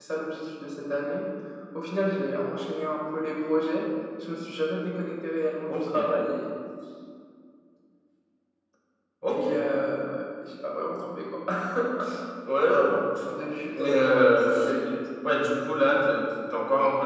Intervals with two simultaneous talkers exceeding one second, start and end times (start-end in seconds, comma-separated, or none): 12.6-13.9